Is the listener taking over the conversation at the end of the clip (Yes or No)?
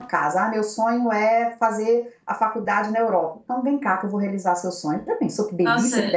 Yes